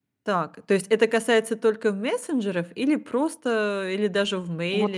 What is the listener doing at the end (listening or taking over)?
taking over